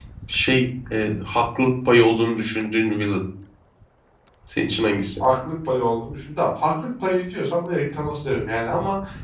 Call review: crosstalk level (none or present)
none